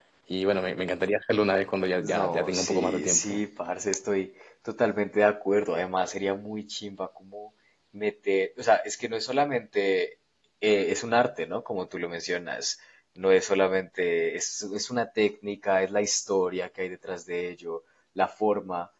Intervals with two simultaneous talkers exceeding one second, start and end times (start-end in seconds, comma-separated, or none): 2.0-3.4